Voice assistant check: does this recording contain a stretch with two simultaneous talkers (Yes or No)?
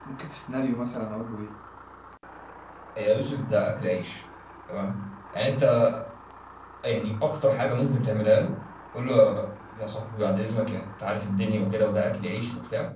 No